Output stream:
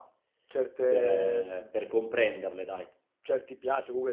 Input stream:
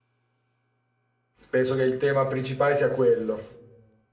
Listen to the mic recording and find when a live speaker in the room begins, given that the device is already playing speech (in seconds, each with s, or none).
1.5 s